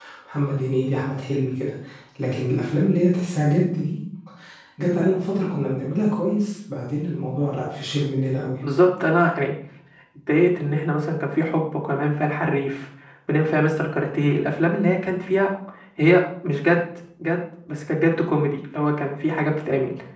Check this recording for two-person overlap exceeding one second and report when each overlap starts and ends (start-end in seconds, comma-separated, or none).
none